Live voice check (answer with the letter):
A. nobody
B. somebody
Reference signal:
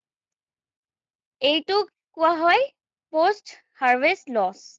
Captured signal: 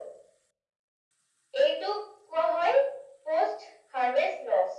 A